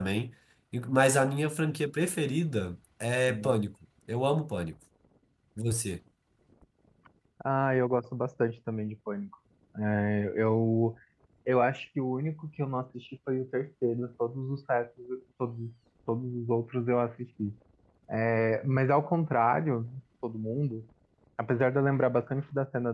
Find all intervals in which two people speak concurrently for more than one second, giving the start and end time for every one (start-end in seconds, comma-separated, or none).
none